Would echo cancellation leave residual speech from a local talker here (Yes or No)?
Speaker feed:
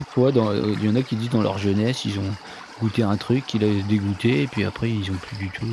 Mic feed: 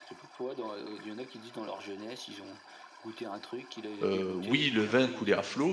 Yes